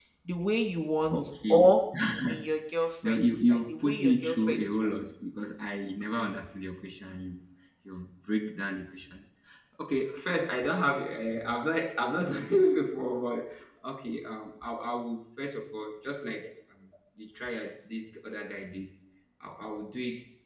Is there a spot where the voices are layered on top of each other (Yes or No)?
Yes